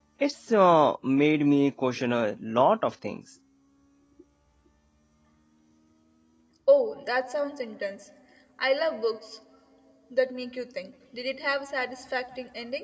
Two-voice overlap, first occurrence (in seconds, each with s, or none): none